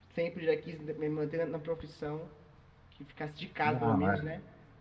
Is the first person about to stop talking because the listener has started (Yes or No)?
No